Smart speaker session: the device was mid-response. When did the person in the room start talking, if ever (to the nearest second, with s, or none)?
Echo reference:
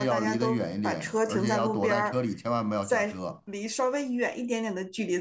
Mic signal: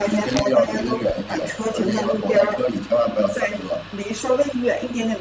none